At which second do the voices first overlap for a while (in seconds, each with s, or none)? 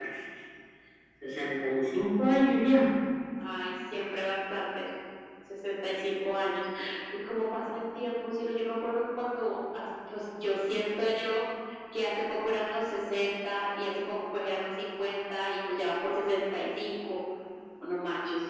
none